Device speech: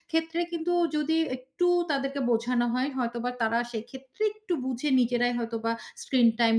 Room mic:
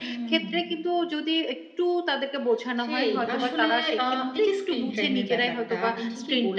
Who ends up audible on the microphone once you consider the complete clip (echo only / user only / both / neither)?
both